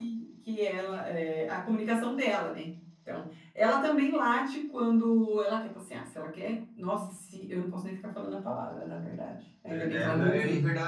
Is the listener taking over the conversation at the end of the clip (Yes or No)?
Yes